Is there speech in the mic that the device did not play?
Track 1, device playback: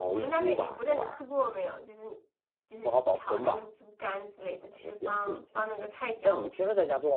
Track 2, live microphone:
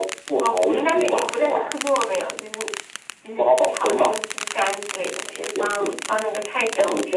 No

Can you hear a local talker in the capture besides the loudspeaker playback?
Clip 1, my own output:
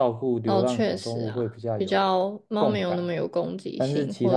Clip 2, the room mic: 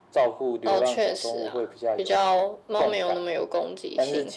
No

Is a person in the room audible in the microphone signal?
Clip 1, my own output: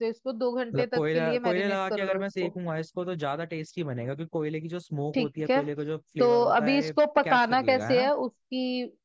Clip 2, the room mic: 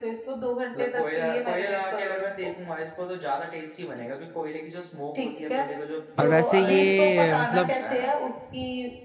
Yes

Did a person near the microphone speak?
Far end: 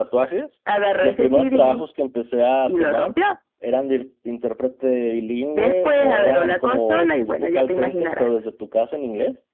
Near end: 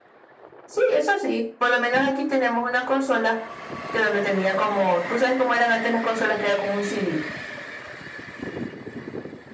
Yes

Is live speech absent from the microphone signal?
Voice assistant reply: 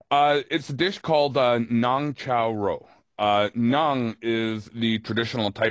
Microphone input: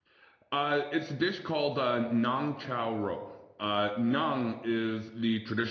Yes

